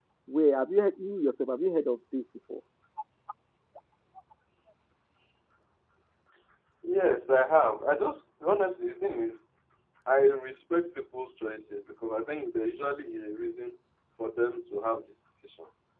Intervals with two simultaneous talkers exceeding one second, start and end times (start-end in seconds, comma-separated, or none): none